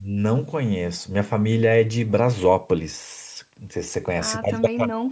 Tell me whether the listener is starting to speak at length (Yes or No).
Yes